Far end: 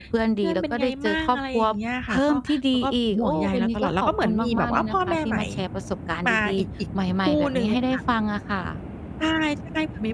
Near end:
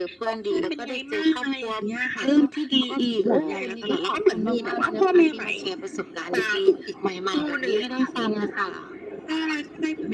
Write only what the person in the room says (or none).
none